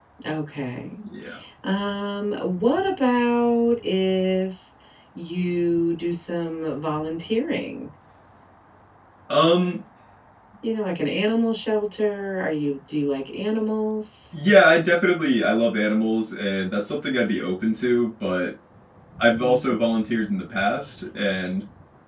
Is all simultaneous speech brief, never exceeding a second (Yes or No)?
Yes